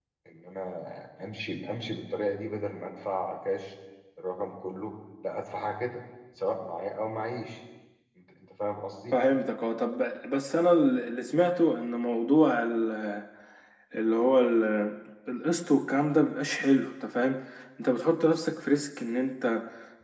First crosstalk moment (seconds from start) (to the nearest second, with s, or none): none